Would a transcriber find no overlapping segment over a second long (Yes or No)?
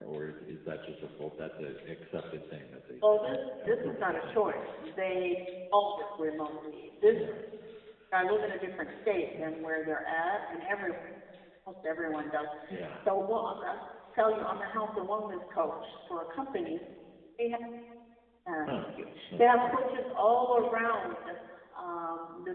No